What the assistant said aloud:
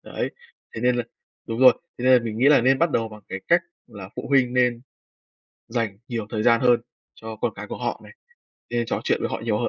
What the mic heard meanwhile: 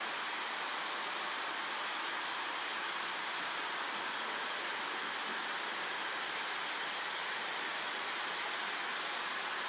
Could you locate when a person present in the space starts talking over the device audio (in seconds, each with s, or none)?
none